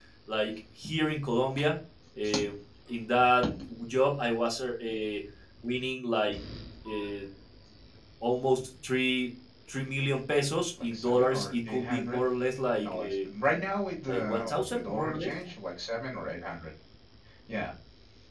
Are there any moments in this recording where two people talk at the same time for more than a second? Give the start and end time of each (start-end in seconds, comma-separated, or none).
10.8-12.2, 14.1-15.3